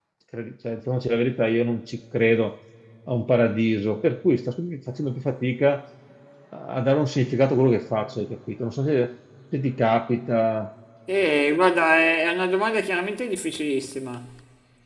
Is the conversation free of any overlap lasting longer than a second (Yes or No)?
Yes